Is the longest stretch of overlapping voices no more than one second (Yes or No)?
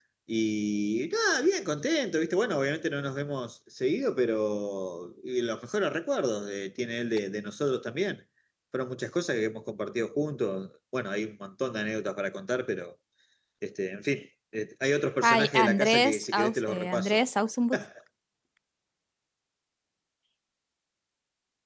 No